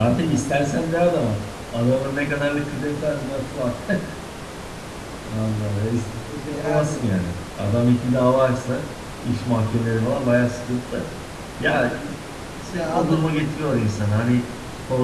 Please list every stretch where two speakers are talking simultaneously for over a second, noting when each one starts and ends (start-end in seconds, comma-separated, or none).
none